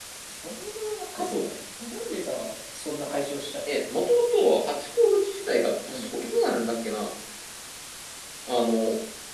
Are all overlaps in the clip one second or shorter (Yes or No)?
Yes